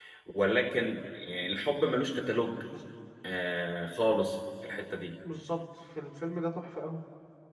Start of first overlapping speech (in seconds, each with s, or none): none